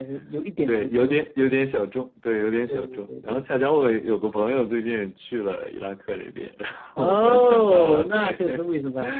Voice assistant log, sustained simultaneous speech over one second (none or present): present